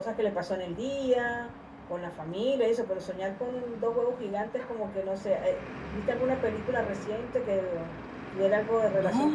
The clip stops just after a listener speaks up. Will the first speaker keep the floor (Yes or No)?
No